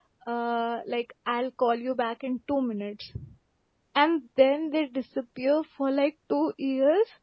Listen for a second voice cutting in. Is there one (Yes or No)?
No